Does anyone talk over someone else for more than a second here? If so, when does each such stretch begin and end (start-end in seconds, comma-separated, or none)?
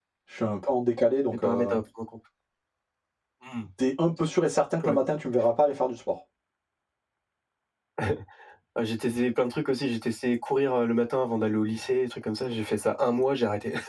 none